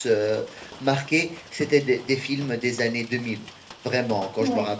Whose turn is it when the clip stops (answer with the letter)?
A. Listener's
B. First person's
B